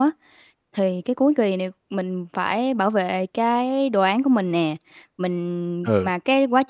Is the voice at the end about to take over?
No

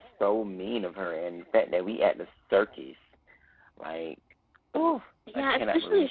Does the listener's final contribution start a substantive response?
Yes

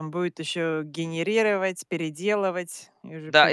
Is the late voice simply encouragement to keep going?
No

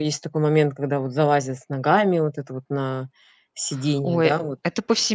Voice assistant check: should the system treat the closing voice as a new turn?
Yes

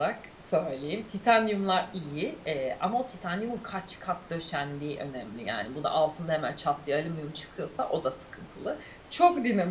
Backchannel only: Yes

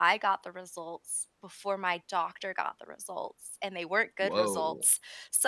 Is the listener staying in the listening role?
Yes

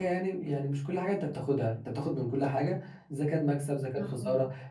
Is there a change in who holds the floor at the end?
No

